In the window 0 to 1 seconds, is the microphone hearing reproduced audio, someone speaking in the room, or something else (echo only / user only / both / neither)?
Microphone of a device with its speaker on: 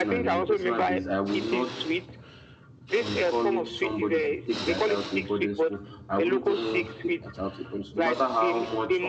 both